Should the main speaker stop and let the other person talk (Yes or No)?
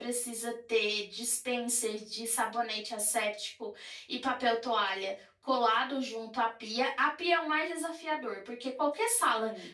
No